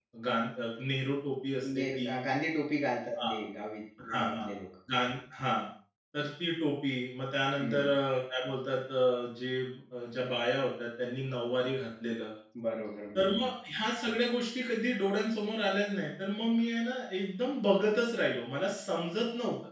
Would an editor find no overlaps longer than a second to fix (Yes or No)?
Yes